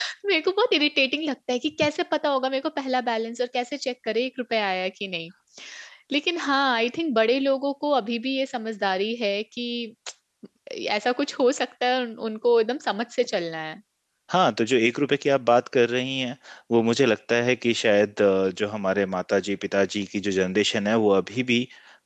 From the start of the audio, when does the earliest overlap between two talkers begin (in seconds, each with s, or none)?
none